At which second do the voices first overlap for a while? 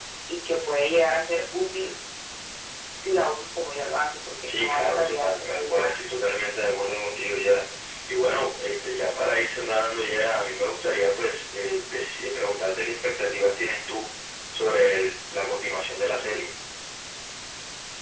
4.5 s

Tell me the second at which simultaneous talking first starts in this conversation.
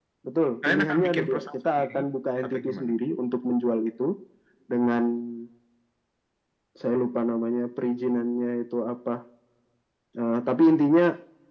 0.7 s

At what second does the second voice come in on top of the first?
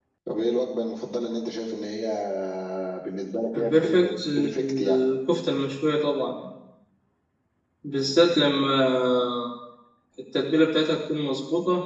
3.5 s

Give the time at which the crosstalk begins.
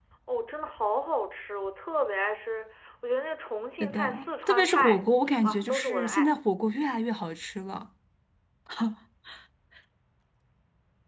3.8 s

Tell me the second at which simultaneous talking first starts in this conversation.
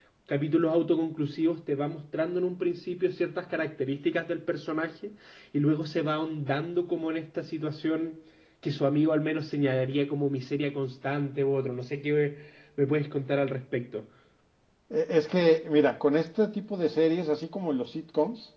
none

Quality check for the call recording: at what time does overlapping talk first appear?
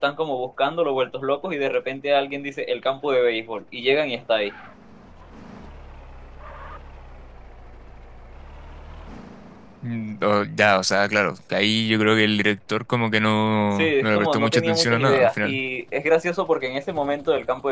13.8 s

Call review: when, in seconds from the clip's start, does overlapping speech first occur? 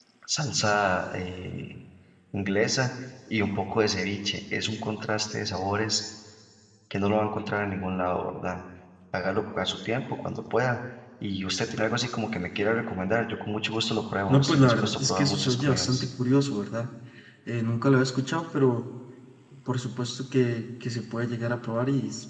14.3 s

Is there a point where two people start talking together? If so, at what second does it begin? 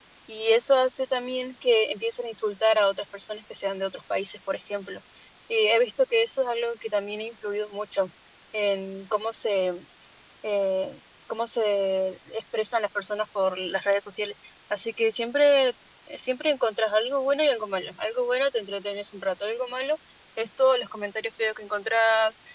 none

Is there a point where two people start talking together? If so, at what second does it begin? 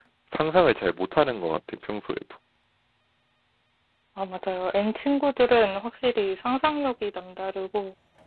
none

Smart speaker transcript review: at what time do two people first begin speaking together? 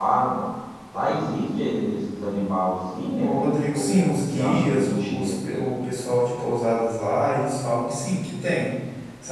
3.2 s

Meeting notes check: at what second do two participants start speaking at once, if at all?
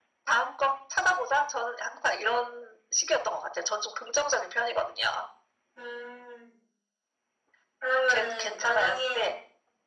8.1 s

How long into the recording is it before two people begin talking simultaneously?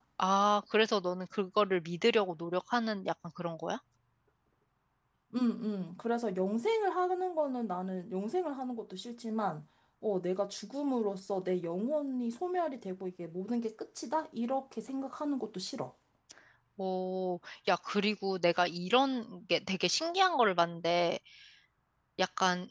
none

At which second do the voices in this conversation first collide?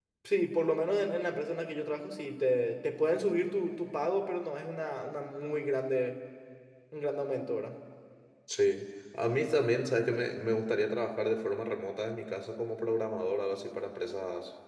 none

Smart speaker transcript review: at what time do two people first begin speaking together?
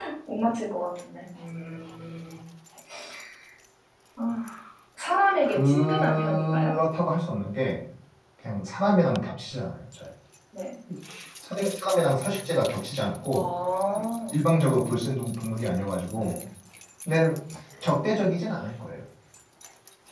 5.5 s

